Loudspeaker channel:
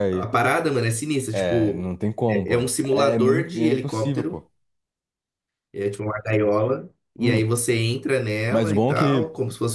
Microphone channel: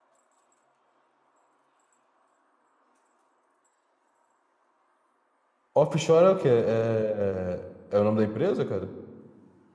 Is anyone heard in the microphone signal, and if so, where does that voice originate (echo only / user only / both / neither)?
user only